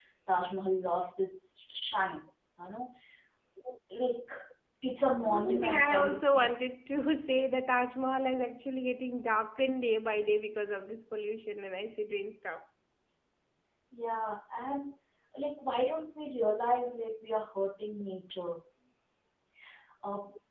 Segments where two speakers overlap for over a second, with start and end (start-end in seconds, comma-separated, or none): 5.2-6.5